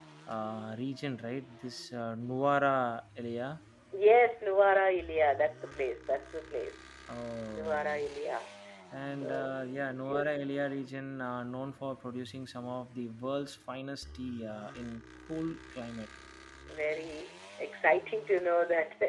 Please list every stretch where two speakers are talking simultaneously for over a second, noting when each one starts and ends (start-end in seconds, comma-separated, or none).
9.1-10.6